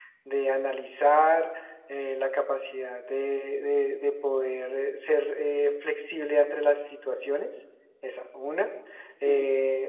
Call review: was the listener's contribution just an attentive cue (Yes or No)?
Yes